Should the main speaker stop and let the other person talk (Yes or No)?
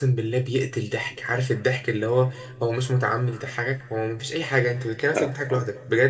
No